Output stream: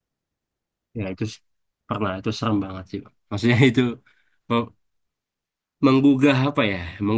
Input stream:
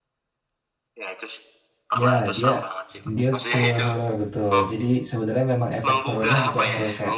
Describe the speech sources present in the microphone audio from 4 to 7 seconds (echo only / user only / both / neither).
both